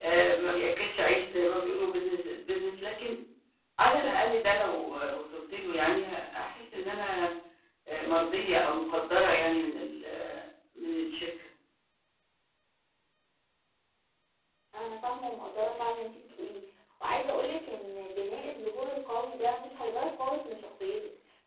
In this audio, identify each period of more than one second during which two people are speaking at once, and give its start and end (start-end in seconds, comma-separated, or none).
none